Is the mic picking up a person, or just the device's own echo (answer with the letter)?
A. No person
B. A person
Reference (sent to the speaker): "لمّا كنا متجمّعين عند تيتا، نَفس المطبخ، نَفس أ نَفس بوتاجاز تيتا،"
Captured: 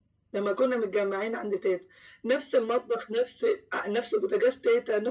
A